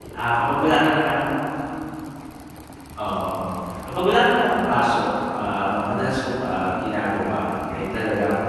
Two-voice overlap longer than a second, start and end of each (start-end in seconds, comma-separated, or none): none